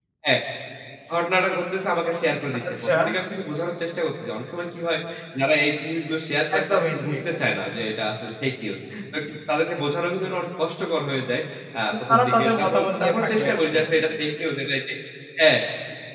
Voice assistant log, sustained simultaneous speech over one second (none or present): present